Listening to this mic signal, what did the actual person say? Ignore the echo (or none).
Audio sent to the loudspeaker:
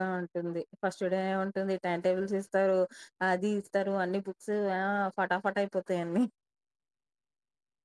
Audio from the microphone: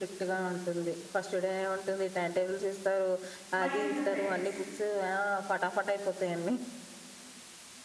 మహీంద్ర ఫైనాన్స్